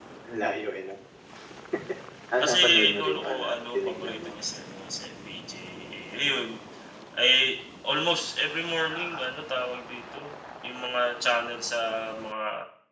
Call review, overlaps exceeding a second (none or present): present